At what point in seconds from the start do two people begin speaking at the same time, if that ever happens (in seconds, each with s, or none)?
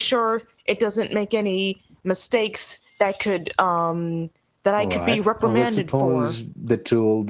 4.8 s